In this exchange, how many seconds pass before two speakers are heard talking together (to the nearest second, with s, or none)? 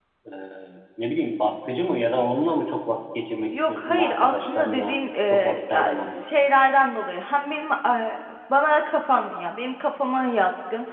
4 s